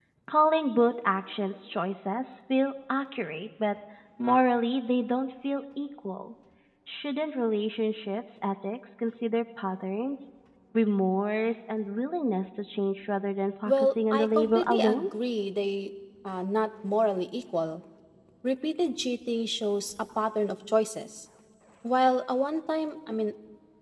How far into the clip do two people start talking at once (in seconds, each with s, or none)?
13.7 s